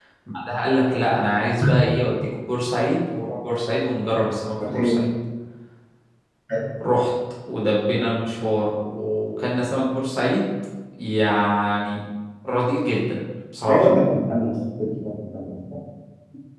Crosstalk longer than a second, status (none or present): none